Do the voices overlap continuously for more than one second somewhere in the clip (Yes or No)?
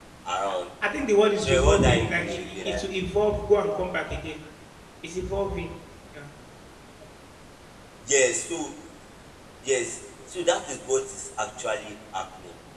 Yes